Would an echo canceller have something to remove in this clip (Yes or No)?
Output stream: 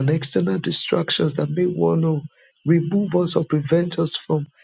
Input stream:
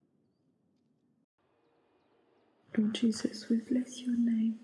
No